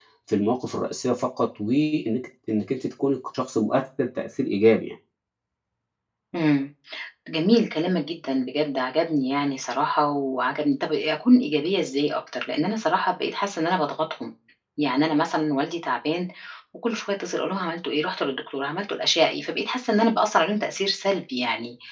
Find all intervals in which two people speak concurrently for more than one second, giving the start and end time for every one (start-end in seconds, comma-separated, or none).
none